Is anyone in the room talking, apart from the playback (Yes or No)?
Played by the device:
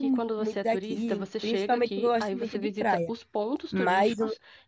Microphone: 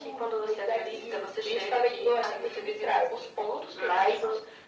No